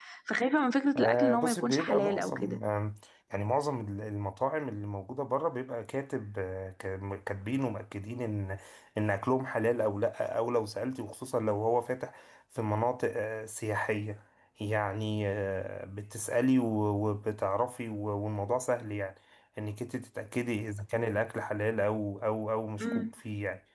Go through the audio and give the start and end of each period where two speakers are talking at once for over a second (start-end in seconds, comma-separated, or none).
1.0-2.6